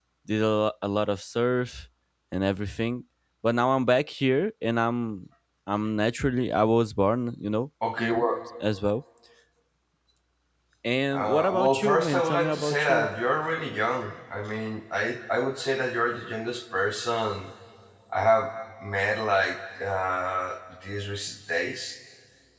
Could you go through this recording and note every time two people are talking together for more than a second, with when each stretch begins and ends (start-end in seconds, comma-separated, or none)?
11.1-13.1